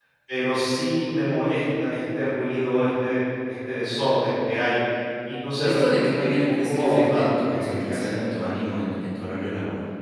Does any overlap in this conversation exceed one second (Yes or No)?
Yes